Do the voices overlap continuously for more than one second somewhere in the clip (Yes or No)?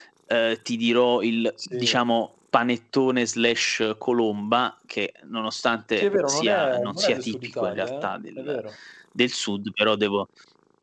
Yes